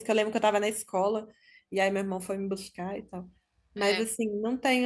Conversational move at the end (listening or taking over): listening